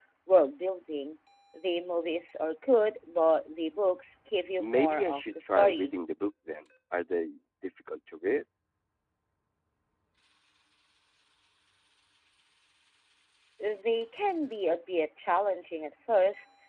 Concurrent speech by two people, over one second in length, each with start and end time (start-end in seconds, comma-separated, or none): 4.6-5.9